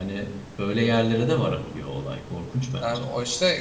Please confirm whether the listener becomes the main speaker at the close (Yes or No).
Yes